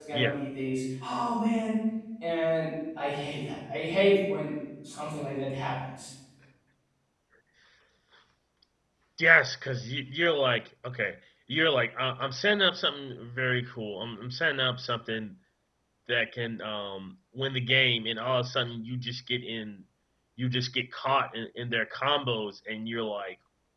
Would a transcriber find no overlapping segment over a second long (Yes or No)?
Yes